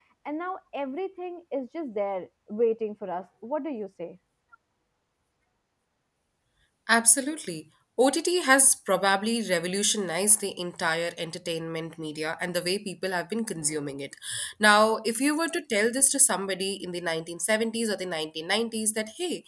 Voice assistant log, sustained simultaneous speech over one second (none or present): none